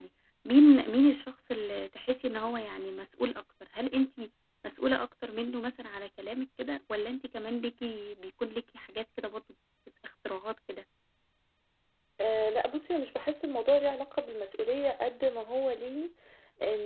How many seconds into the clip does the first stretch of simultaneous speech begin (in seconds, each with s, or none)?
none